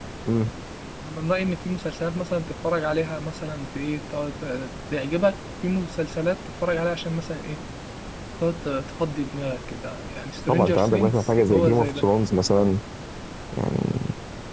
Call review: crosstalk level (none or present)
present